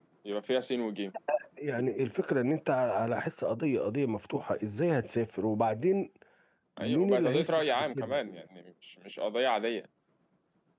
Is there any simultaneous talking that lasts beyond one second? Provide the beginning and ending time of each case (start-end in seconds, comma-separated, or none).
6.8-8.2